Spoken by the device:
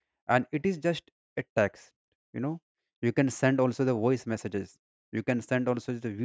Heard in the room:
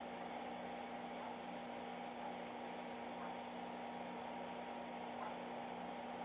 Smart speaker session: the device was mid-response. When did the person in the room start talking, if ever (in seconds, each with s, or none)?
none